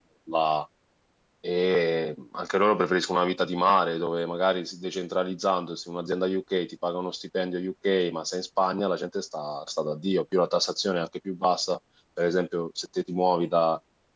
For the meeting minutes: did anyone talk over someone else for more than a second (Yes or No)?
No